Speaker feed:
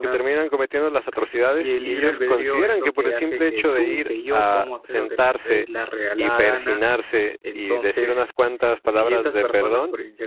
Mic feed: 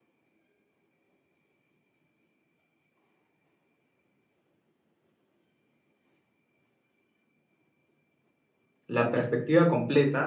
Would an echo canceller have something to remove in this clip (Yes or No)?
No